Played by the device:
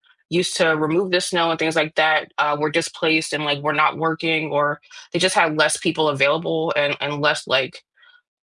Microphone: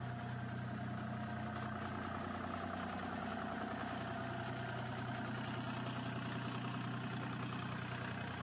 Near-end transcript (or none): none